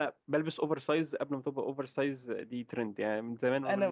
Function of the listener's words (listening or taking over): listening